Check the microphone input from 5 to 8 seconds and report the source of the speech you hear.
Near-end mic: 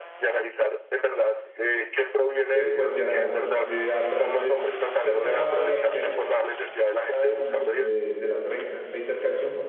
both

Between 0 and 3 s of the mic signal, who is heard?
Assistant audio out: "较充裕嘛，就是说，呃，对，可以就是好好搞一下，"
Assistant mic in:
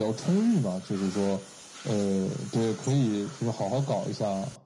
echo only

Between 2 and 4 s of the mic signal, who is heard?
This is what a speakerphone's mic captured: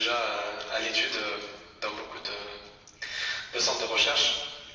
echo only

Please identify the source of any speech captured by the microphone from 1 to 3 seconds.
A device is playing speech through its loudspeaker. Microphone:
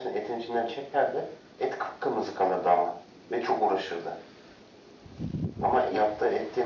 echo only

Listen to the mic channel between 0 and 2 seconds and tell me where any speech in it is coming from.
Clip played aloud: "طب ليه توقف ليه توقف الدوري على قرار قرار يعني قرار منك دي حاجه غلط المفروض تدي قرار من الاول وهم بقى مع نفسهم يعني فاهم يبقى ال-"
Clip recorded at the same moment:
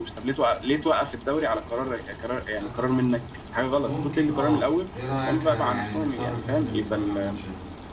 echo only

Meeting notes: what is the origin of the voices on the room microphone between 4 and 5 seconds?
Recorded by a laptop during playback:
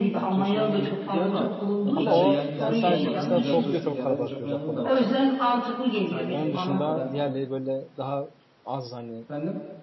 both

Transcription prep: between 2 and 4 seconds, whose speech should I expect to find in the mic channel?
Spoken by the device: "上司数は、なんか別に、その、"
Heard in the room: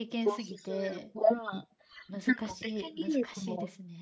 both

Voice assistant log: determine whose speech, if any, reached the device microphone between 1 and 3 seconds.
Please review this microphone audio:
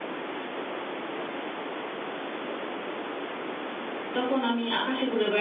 neither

